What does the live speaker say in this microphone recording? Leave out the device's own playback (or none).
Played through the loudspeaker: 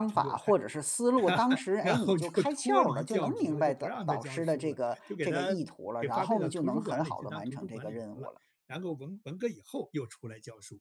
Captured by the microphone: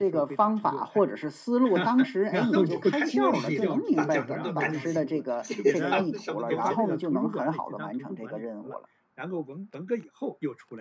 那我们开始不适应了，他讲什么都赶紧记，他讲了什么东西，